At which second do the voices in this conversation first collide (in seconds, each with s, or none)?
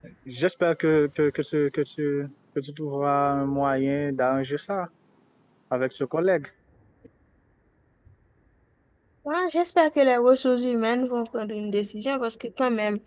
none